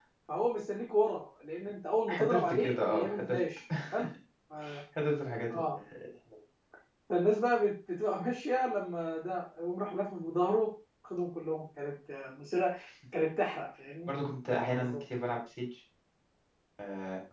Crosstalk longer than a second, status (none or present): present